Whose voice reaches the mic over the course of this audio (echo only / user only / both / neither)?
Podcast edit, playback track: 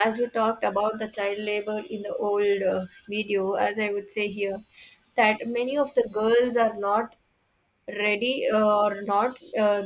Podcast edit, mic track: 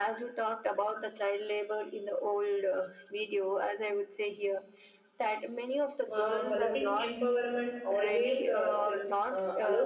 both